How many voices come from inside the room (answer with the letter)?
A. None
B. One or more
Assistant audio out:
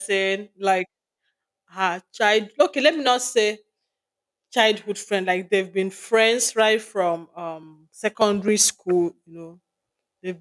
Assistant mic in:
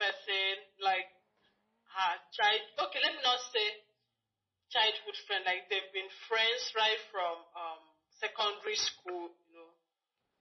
A